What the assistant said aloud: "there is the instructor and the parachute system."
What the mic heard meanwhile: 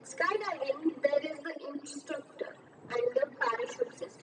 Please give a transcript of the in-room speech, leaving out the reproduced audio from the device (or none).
none